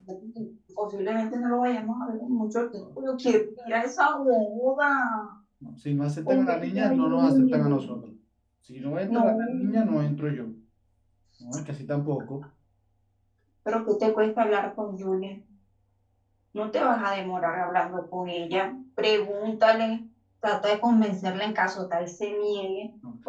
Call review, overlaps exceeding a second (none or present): present